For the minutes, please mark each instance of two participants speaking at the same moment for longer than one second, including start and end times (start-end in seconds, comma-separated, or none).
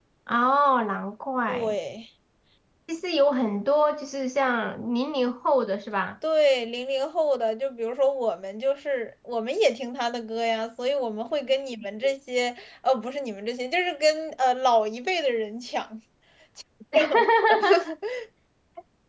none